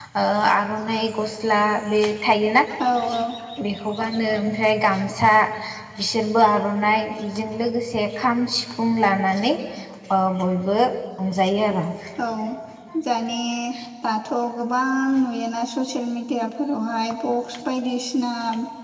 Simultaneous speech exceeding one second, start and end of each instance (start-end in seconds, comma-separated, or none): none